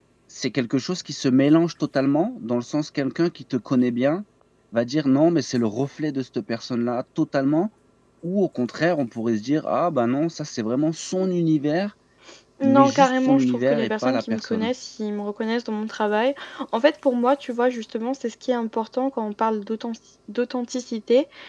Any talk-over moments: Yes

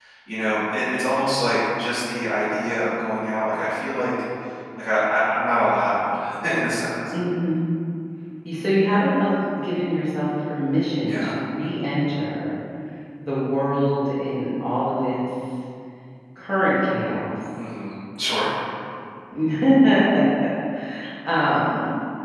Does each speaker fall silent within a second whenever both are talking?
Yes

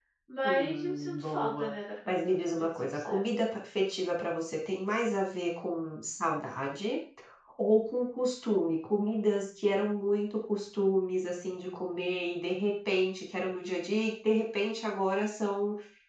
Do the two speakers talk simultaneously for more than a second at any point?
Yes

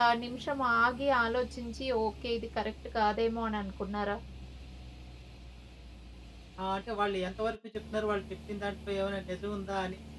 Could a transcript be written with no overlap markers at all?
Yes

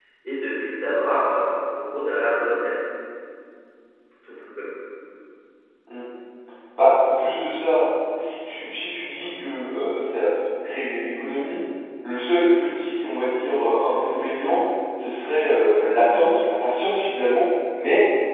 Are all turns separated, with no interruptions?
Yes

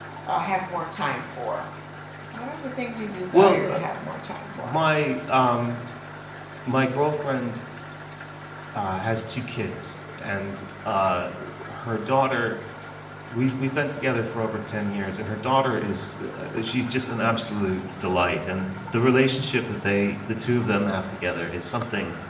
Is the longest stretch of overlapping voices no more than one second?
Yes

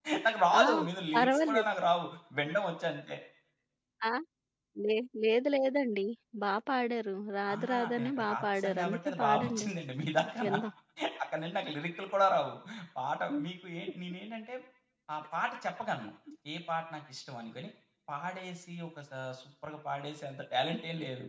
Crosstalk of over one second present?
Yes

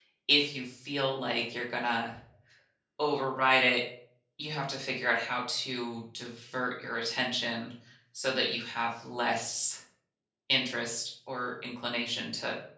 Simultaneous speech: No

